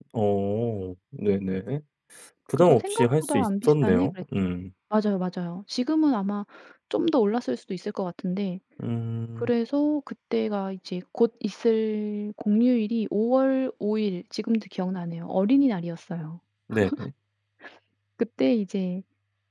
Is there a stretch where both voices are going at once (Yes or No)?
Yes